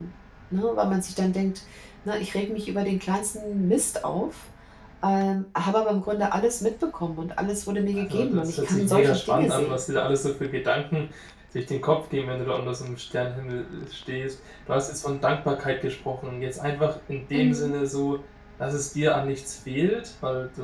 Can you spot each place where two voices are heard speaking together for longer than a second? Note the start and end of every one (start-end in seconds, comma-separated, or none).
8.0-9.8